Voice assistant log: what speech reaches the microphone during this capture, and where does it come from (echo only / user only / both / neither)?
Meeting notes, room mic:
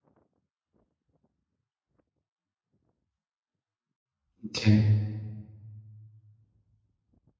user only